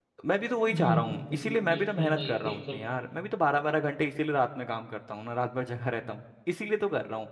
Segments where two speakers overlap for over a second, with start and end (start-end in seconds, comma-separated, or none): 0.7-2.8